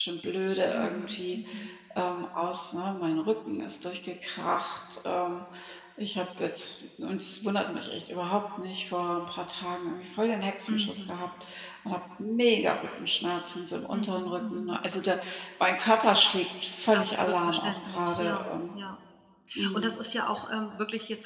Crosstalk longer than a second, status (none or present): present